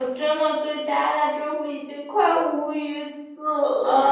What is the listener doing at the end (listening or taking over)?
taking over